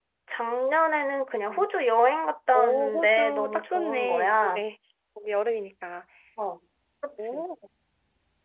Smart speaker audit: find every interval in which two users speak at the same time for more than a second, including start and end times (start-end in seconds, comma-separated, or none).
2.5-4.6